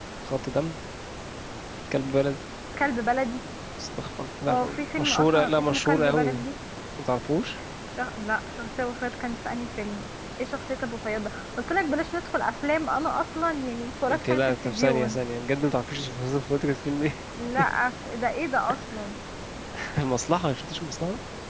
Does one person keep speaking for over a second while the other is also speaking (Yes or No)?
Yes